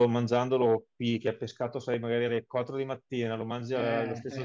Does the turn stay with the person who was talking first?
Yes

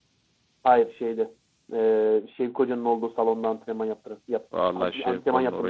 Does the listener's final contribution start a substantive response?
Yes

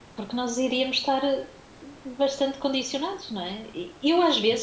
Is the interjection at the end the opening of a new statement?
No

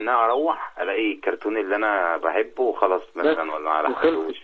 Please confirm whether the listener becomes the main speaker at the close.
Yes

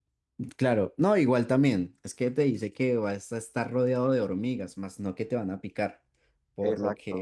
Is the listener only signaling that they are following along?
Yes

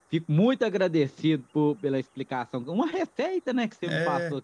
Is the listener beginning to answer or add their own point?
Yes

